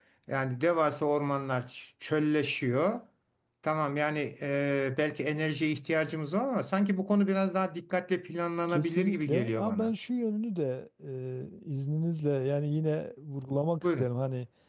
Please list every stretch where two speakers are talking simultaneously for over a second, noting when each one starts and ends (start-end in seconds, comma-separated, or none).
8.7-9.9